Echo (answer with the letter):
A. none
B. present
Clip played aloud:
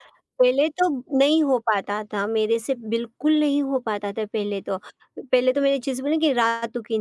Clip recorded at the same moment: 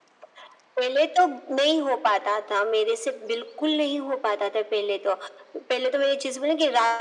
B